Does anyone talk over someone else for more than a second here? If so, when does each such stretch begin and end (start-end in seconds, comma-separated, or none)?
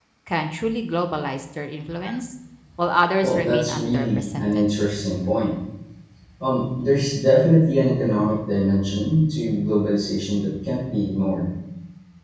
3.2-4.7